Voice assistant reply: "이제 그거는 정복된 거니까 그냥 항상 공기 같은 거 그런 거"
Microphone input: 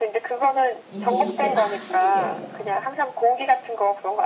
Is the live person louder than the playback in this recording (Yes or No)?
No